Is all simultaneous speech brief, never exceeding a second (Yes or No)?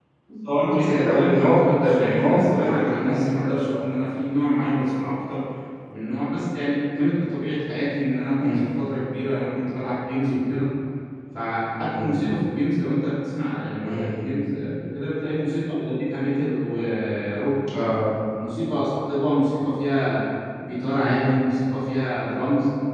No